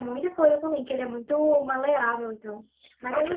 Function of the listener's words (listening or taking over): taking over